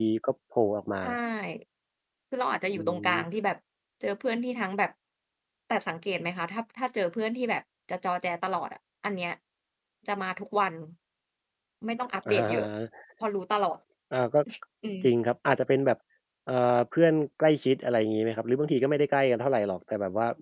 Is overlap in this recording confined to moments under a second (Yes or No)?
Yes